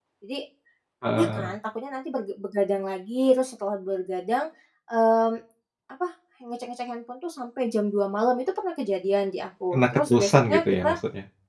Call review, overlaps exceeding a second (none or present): present